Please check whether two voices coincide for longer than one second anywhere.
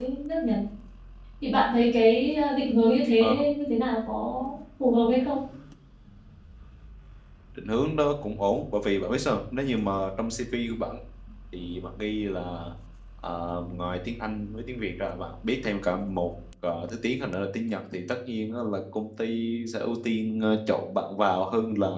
No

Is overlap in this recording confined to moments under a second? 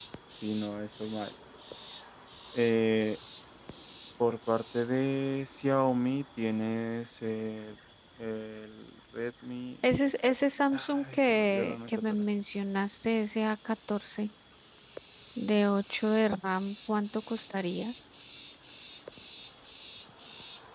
No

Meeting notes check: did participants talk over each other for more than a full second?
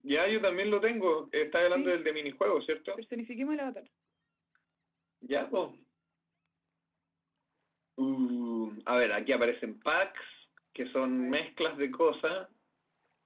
No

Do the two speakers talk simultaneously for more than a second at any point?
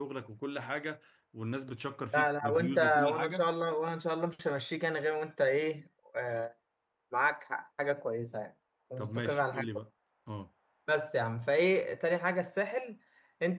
Yes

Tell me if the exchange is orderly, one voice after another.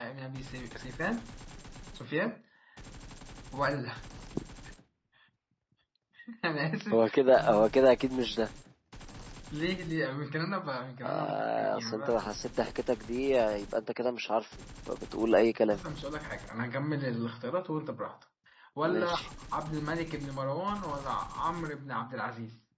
No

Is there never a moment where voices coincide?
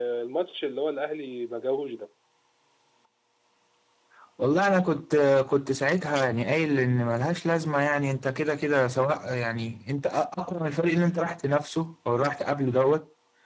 Yes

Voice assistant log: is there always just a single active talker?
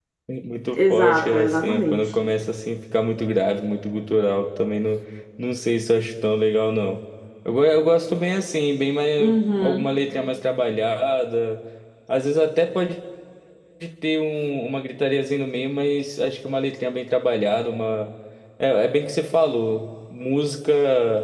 No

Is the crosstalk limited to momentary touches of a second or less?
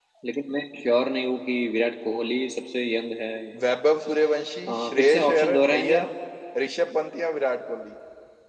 No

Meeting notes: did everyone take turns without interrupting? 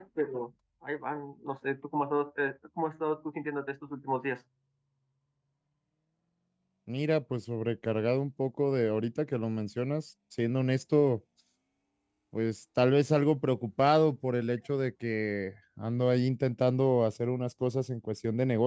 Yes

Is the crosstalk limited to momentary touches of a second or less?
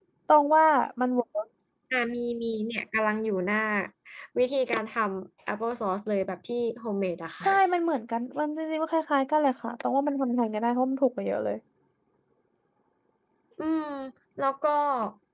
Yes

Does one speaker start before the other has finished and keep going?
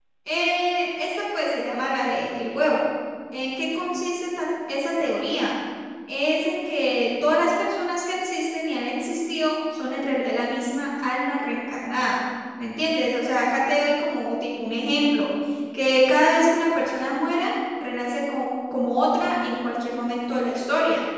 No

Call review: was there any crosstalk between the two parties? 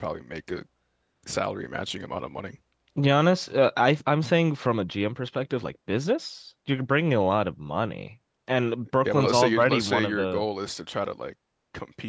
Yes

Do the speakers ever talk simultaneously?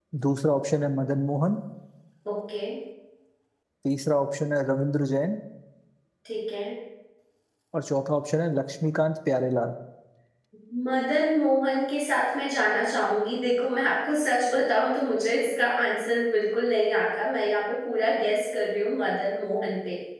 No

